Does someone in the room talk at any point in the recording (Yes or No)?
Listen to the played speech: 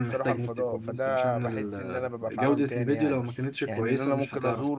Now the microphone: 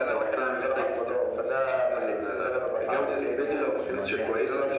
Yes